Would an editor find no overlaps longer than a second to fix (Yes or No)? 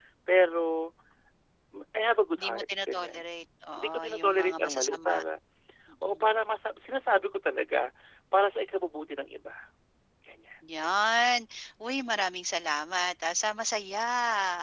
No